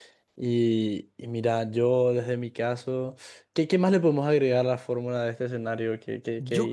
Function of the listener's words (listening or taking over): taking over